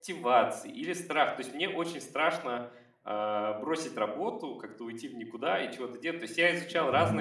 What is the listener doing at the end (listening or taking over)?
listening